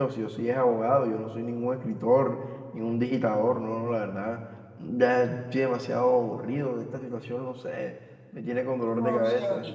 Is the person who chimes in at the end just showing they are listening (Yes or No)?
No